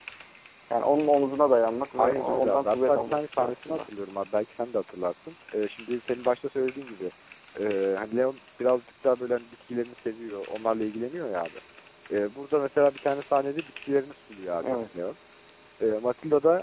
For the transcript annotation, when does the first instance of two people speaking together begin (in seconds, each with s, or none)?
2.0 s